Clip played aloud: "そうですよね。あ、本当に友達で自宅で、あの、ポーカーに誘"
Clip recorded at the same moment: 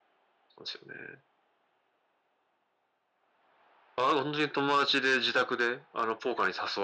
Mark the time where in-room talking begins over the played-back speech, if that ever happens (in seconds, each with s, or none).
none